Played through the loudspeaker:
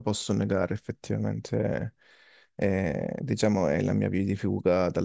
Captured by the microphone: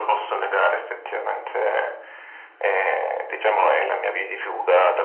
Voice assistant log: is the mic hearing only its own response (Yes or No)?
Yes